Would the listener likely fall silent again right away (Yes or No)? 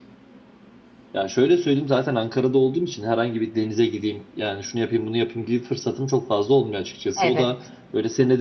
Yes